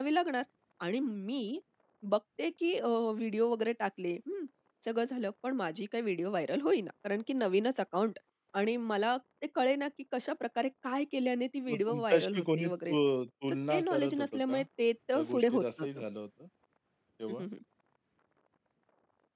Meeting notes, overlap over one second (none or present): present